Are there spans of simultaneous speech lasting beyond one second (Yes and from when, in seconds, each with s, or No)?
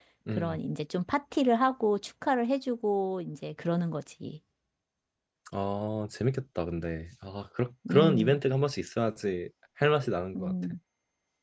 No